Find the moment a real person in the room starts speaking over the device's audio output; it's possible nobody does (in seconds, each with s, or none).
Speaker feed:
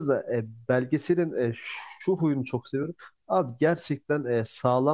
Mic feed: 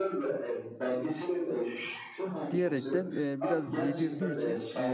2.5 s